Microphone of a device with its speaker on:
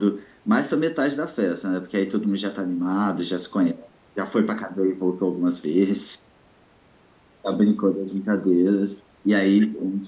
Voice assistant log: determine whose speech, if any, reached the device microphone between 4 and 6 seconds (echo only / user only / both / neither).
echo only